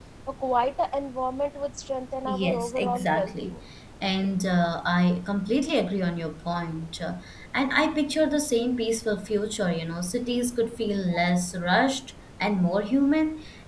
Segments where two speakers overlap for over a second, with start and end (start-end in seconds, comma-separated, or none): 2.2-3.6